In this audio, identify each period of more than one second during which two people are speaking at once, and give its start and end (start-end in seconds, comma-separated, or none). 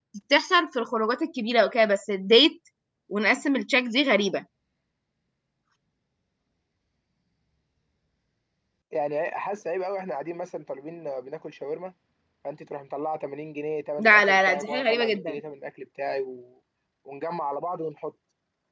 14.0-15.4